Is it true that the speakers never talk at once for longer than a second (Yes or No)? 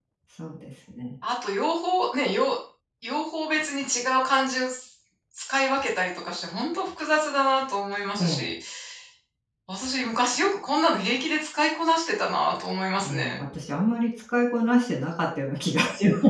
Yes